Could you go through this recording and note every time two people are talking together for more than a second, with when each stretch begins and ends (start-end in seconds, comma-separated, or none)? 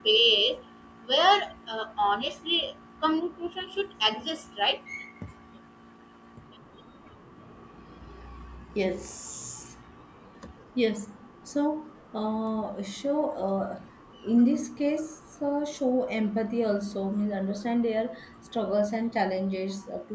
none